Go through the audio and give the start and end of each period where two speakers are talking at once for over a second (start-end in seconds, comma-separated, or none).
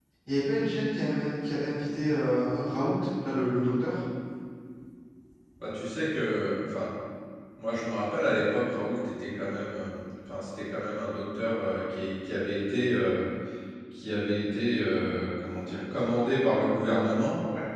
none